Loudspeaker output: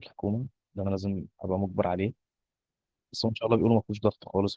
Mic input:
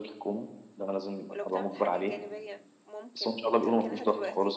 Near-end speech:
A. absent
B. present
B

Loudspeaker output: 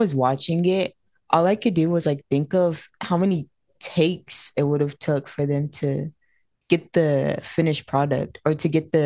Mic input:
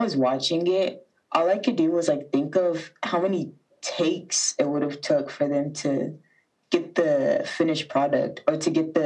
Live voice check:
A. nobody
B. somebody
A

